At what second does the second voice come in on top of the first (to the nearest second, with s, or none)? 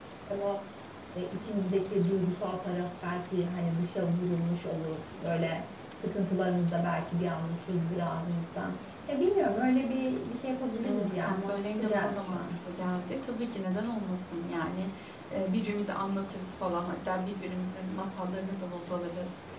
11 s